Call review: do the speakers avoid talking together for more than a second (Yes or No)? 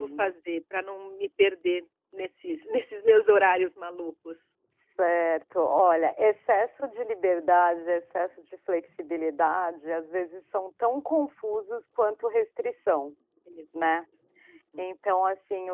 Yes